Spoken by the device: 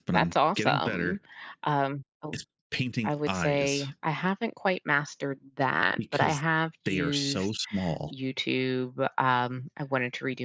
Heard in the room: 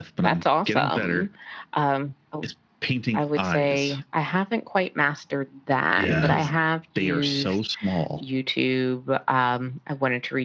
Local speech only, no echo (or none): yeah.